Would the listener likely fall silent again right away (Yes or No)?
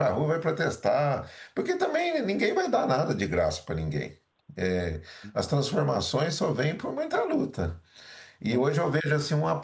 Yes